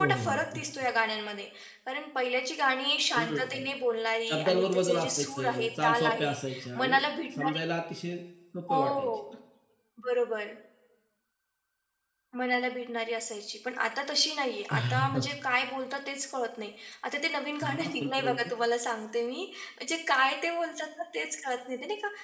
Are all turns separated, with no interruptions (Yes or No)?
No